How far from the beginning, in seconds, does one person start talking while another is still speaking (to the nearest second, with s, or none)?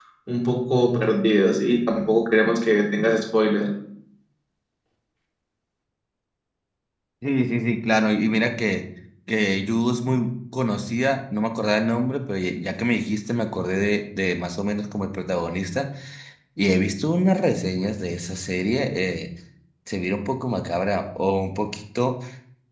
none